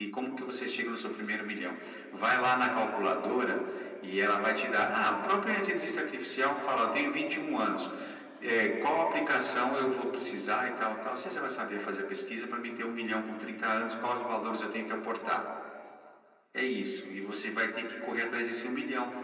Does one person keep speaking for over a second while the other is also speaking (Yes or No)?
No